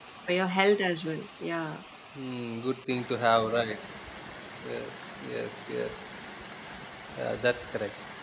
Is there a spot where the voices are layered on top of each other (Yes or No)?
No